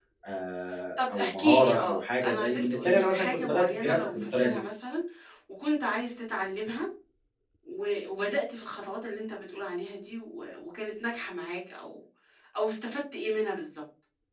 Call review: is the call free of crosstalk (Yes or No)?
No